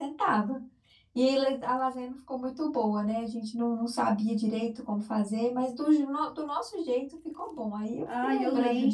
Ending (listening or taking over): taking over